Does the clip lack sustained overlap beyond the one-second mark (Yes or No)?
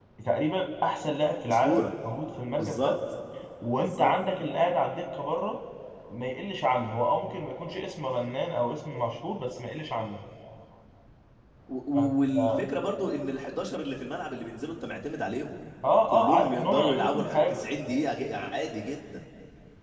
No